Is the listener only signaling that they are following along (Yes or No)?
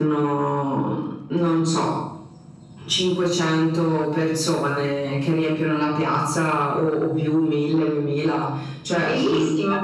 No